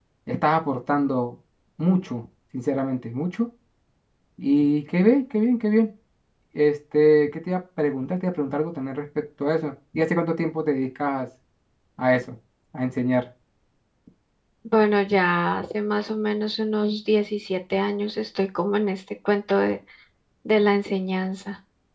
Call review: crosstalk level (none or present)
none